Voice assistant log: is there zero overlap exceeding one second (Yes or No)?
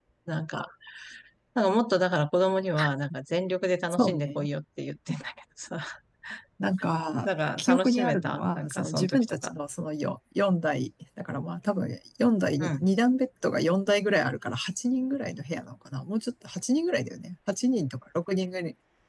No